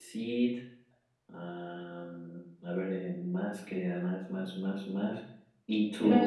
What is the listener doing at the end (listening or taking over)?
listening